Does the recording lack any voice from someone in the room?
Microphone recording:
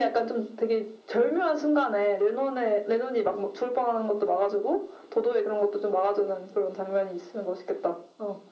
Yes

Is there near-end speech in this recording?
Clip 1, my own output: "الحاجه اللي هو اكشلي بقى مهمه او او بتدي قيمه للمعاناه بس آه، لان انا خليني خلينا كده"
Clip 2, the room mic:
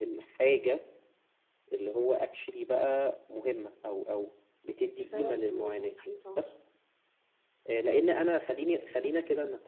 Yes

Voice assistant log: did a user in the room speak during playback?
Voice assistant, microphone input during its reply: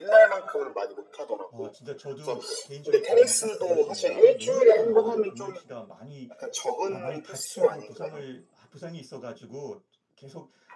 Yes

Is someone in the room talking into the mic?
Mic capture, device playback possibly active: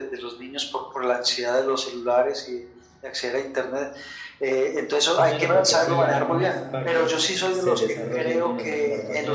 Yes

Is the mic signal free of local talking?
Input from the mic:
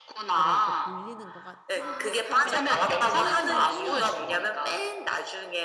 No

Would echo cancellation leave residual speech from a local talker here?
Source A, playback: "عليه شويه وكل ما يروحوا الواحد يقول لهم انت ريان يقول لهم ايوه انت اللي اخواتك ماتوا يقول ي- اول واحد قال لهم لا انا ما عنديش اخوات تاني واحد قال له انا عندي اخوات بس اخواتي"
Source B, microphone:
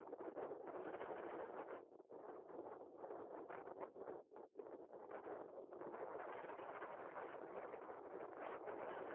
No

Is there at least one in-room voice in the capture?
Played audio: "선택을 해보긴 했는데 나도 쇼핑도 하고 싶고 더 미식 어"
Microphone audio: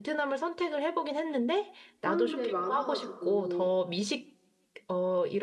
Yes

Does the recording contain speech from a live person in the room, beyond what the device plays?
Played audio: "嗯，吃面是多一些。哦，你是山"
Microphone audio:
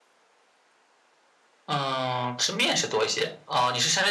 No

